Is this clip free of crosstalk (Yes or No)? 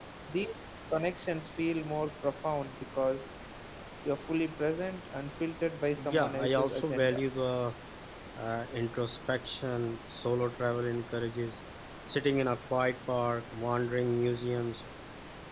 No